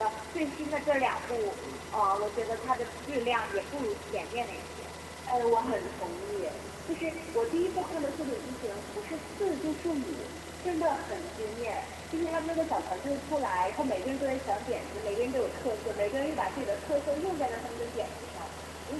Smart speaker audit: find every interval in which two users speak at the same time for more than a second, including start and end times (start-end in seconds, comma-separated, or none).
none